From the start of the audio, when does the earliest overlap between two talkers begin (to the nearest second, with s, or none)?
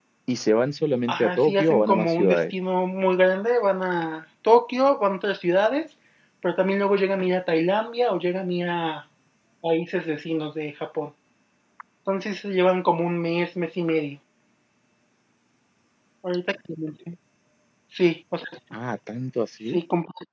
1 s